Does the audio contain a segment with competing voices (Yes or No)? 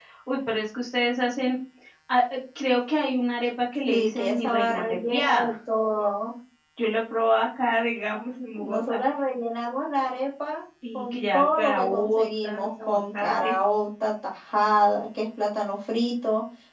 Yes